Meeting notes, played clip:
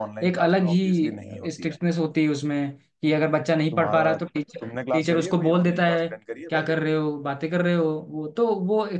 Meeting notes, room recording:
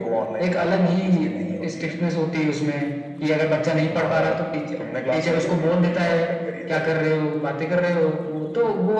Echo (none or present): present